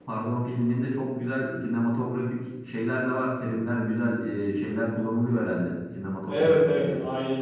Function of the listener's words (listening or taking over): taking over